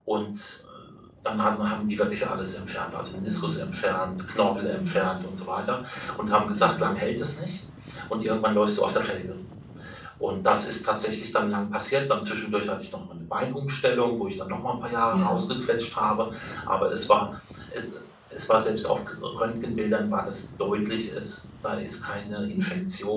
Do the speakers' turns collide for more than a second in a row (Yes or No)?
No